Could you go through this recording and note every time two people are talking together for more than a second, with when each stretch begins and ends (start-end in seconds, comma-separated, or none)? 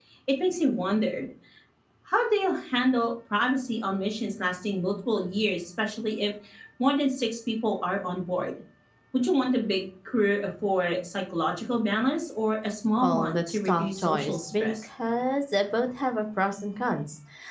13.0-14.9